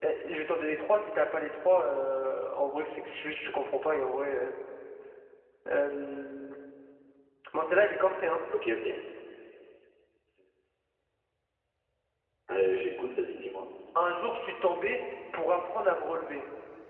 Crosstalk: none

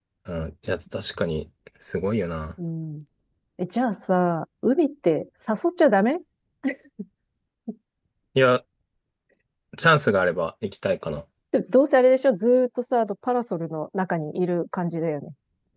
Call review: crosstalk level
none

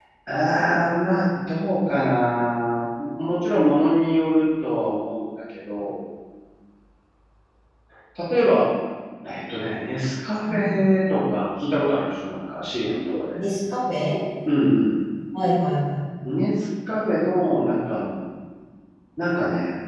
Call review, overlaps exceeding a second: none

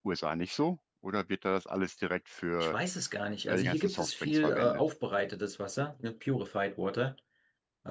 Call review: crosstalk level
present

